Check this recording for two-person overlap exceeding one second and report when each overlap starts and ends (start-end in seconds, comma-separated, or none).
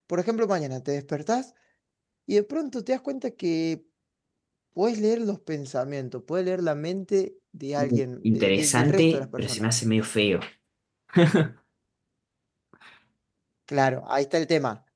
7.8-9.7